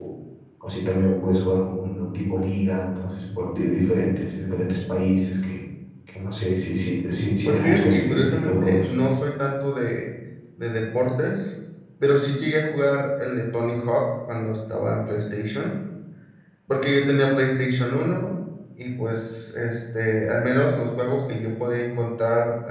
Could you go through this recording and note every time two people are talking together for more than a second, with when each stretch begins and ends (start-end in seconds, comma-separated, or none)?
7.5-8.9